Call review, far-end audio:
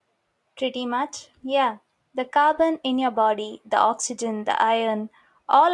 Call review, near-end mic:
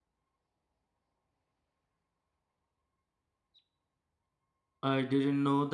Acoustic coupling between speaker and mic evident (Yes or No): No